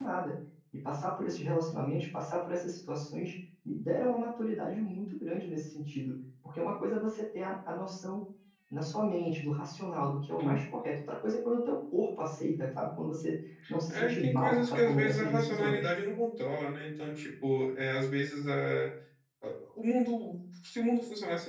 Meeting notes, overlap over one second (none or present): present